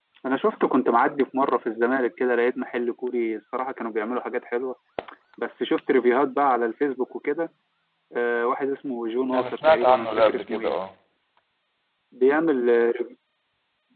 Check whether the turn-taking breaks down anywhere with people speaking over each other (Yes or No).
Yes